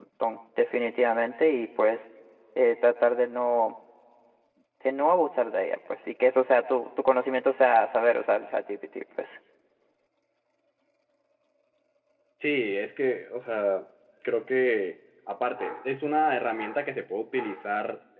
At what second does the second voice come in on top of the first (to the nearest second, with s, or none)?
none